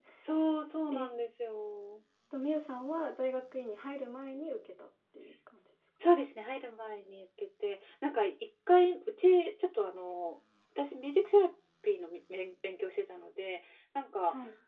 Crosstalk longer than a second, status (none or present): none